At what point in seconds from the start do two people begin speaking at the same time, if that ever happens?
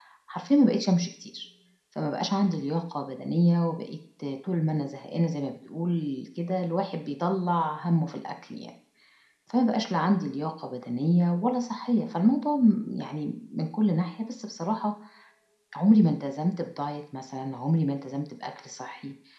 none

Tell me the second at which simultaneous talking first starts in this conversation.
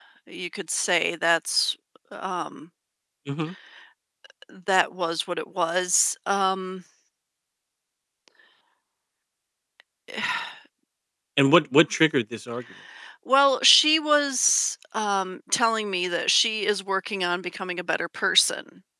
none

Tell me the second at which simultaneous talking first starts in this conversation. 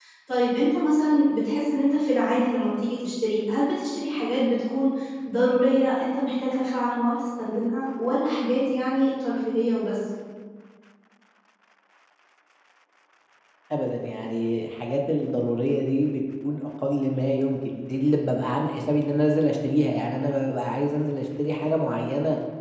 none

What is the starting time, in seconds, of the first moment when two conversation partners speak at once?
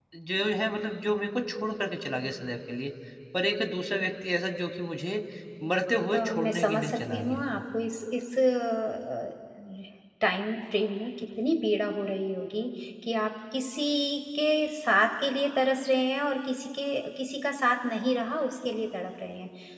6.1 s

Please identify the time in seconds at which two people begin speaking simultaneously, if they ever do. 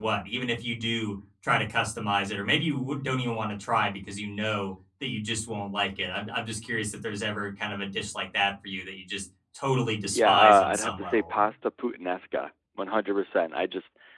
10.1 s

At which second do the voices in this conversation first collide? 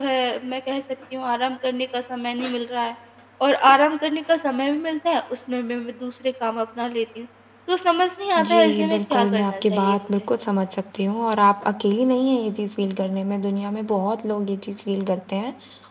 8.4 s

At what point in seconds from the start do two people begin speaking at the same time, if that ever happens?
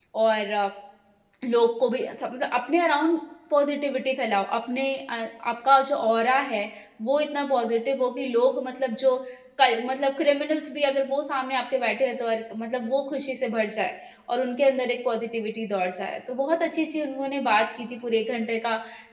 none

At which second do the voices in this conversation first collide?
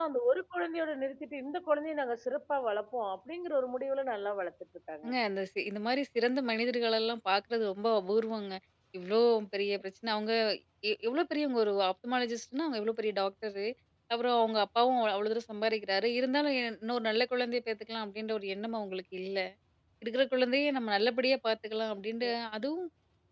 none

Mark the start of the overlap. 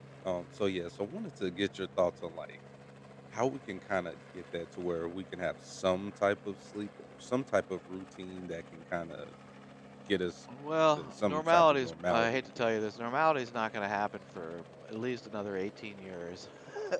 11.0 s

